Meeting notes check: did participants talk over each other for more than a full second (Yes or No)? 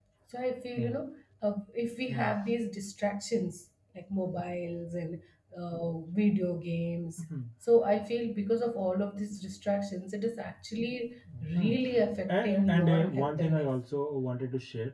Yes